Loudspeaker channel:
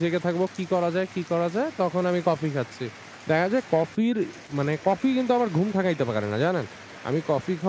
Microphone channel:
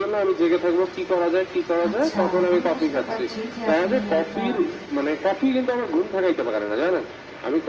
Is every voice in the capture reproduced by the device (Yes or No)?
No